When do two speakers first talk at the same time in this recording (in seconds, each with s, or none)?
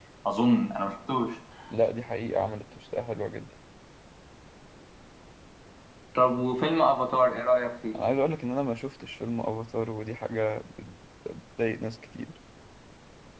none